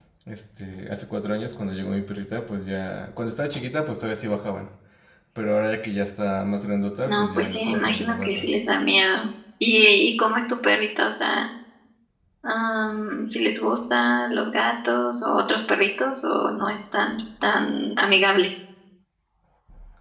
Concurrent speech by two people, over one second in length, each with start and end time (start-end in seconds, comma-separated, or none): 7.1-8.4